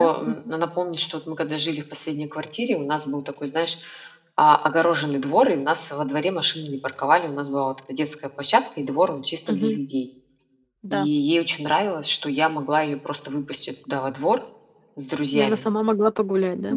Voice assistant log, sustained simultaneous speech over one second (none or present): none